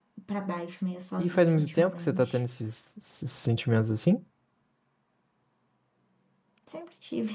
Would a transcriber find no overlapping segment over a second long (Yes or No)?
No